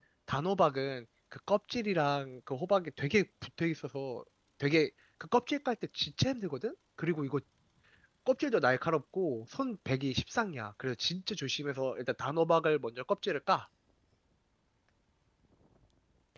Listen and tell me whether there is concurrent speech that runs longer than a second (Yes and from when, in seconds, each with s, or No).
No